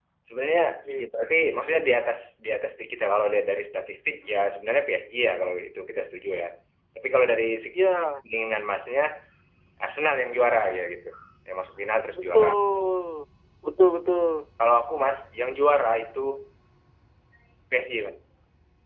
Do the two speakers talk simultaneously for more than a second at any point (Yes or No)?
No